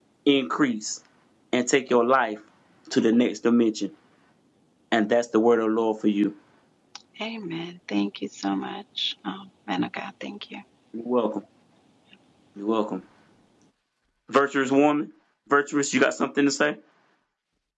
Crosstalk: none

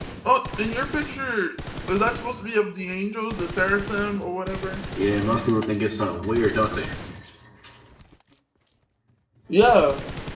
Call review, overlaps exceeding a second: none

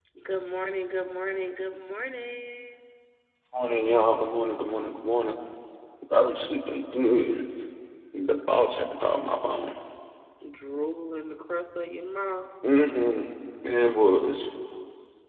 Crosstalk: none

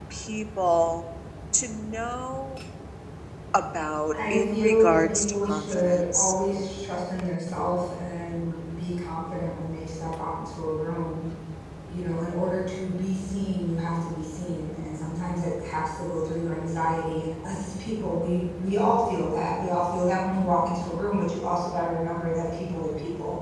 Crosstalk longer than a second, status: present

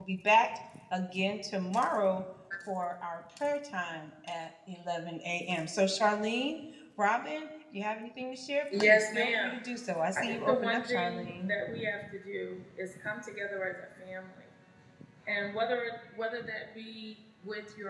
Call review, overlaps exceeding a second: present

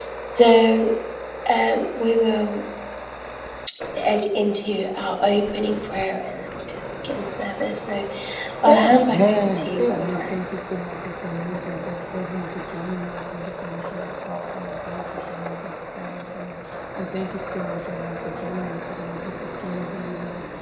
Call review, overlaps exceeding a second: present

